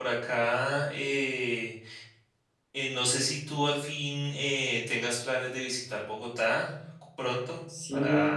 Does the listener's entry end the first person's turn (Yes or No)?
Yes